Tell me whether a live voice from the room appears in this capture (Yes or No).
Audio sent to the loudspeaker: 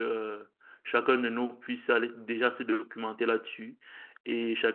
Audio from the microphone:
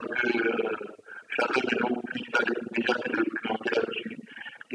No